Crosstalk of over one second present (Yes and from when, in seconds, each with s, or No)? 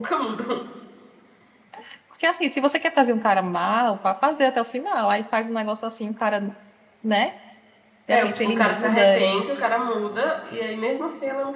Yes, from 8.1 s